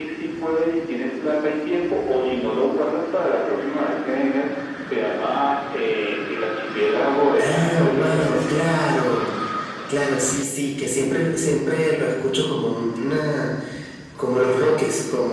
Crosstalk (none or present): present